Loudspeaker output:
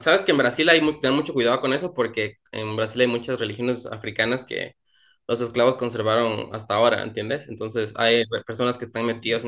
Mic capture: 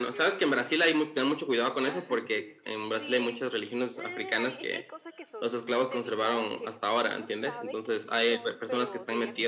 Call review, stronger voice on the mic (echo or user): echo